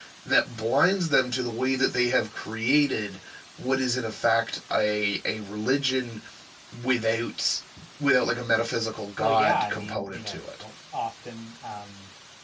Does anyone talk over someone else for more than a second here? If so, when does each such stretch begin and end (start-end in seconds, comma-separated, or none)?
9.2-10.6